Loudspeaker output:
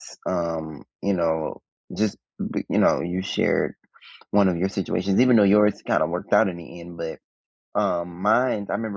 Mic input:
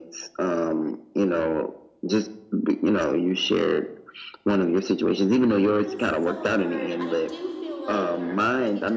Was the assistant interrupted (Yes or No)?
Yes